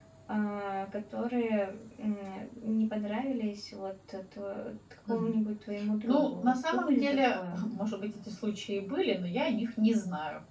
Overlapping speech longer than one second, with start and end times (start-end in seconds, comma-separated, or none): 6.0-7.4